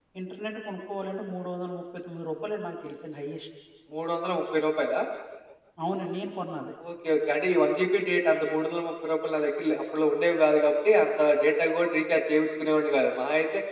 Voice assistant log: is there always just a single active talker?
Yes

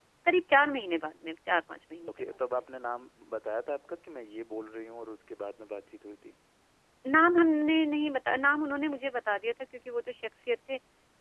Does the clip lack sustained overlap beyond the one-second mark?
Yes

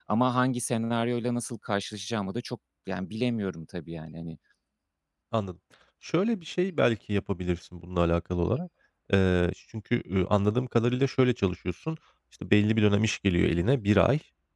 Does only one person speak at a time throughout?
Yes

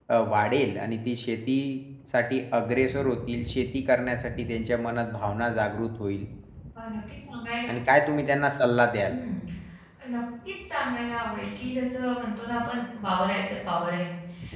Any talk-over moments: No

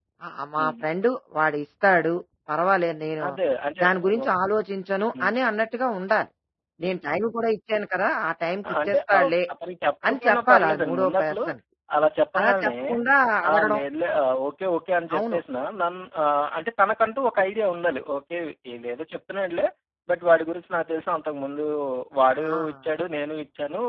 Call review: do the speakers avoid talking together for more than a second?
No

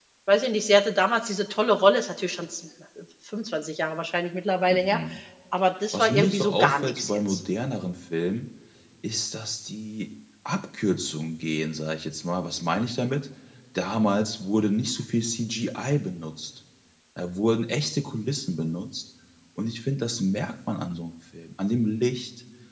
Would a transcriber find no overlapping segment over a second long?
No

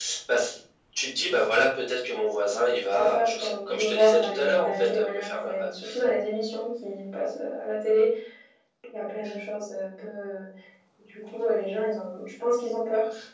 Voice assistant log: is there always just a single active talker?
No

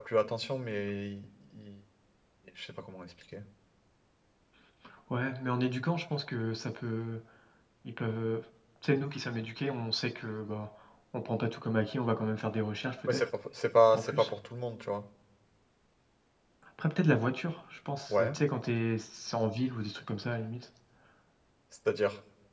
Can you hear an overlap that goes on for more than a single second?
No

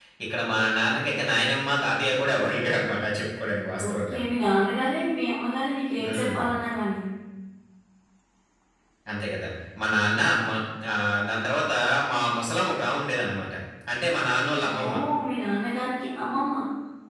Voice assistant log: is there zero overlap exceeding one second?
Yes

